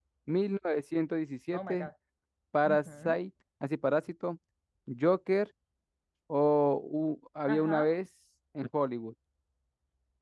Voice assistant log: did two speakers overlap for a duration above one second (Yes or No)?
No